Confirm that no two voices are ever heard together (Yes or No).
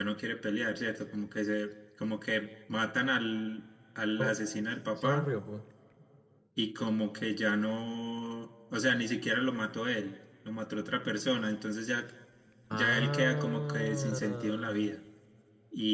No